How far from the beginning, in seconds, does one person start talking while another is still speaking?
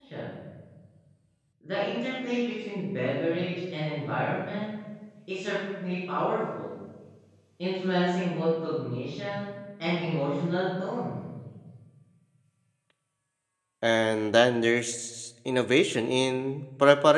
none

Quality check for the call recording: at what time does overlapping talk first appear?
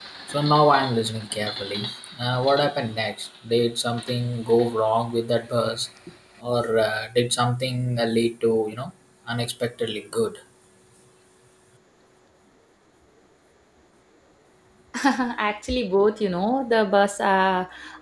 none

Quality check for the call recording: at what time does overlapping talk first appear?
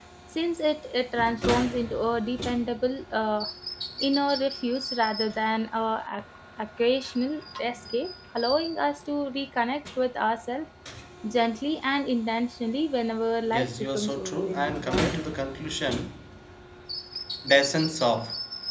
13.5 s

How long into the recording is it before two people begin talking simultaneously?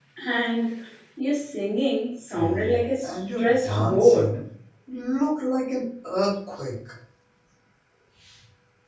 2.3 s

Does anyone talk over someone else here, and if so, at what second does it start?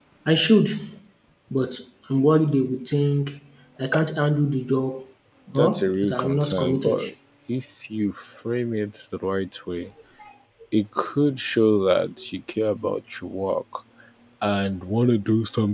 5.5 s

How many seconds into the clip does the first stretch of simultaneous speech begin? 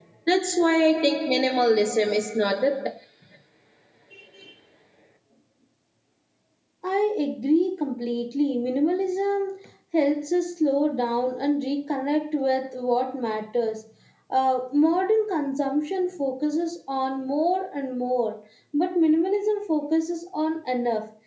none

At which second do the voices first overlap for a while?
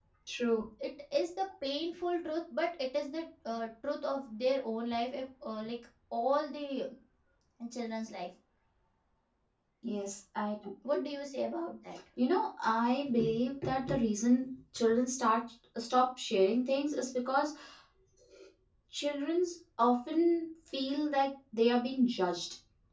none

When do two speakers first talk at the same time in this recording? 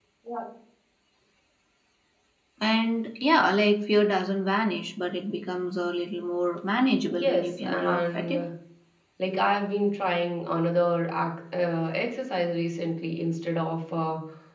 7.1 s

